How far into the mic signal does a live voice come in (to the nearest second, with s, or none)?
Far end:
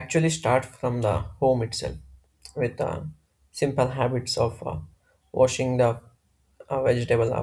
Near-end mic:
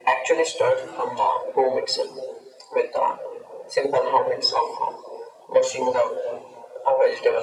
none